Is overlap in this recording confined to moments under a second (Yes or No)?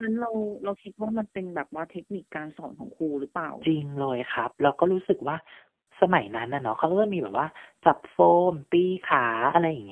Yes